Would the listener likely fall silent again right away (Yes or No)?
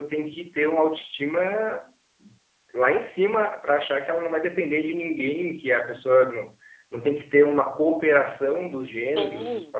No